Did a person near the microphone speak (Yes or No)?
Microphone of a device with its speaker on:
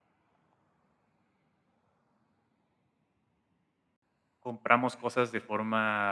Yes